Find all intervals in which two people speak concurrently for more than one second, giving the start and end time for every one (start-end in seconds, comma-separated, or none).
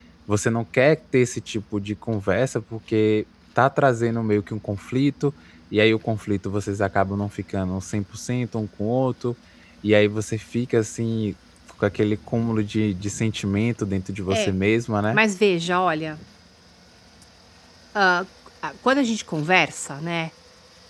none